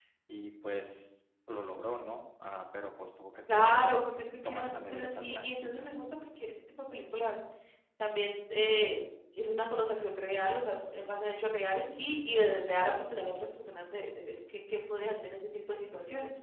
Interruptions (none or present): present